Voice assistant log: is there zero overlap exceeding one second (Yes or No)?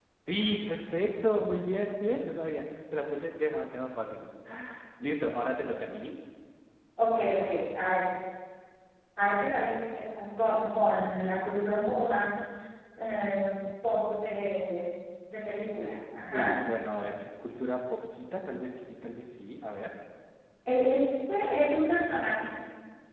Yes